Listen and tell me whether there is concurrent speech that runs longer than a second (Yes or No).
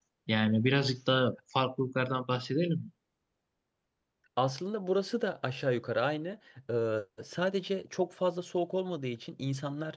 No